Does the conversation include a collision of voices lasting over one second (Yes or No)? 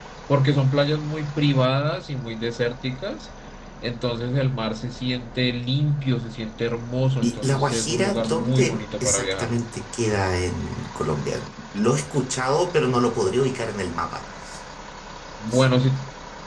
Yes